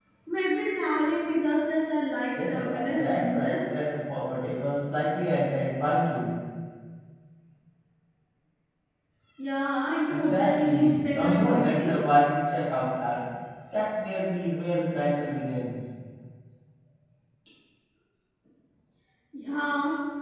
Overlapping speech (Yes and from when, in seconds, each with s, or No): Yes, from 2.4 s